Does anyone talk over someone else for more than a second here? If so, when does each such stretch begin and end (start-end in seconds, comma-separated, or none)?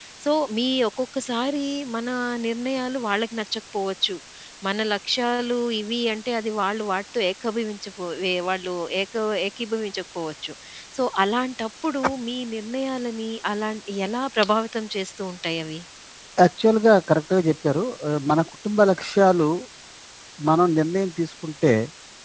none